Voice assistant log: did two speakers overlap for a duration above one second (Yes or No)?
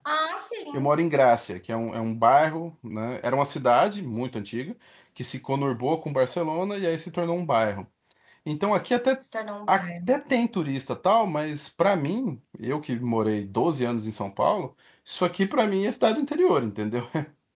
No